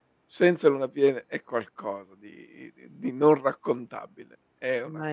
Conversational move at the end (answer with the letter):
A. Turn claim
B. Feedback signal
B